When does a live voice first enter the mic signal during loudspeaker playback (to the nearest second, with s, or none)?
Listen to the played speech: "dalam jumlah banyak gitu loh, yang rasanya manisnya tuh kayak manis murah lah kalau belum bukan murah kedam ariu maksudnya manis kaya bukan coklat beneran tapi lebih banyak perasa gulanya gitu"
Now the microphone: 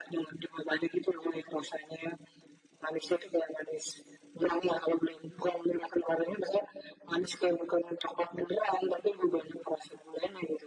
none